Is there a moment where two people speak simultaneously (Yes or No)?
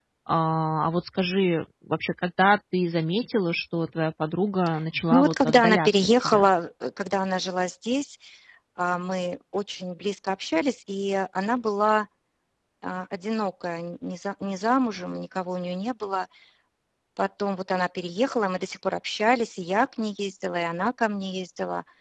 Yes